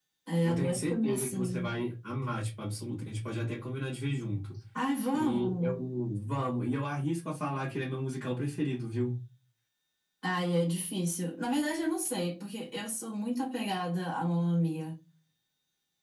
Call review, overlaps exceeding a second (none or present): present